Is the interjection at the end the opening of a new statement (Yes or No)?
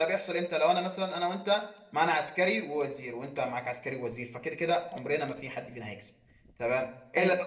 No